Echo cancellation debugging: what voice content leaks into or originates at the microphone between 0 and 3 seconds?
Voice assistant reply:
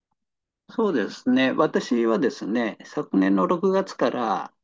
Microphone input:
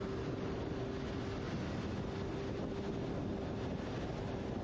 neither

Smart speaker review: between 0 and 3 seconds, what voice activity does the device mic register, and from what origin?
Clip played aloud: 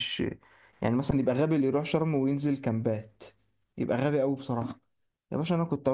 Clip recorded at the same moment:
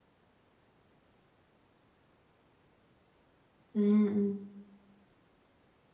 neither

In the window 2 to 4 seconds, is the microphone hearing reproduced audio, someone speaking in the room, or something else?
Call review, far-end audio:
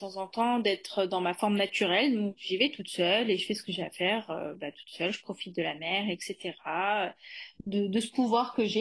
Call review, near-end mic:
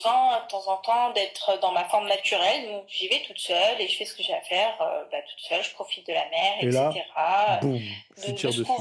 echo only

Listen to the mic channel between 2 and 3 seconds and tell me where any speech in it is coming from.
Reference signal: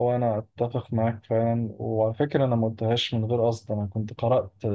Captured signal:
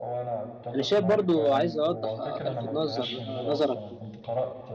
both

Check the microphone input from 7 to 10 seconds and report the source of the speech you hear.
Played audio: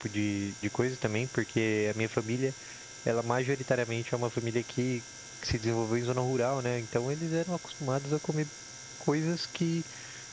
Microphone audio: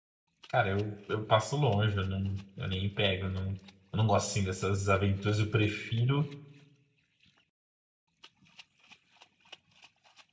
neither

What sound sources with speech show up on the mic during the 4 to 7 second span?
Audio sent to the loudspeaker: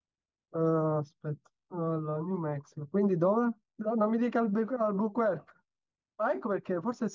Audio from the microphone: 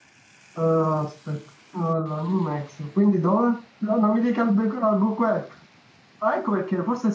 echo only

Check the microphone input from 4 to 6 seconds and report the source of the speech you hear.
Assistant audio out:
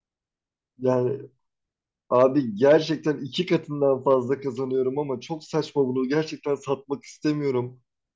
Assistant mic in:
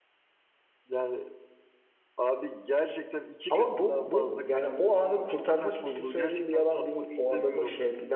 both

